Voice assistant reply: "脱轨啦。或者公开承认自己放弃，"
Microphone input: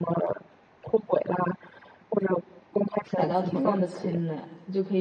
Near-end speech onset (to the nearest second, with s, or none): 3 s